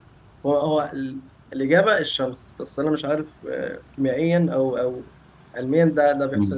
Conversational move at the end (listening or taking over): taking over